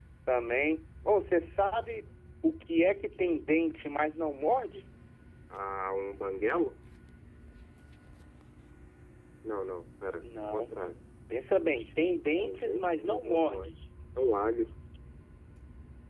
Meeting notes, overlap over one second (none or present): present